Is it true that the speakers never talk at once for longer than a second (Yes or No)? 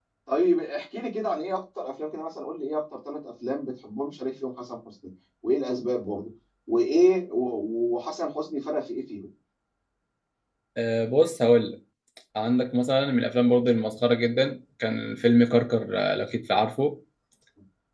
Yes